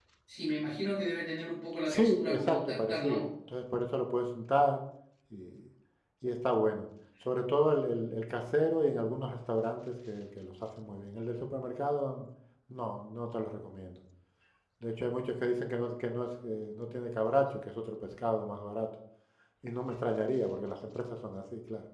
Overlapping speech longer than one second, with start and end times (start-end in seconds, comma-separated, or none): 1.9-3.3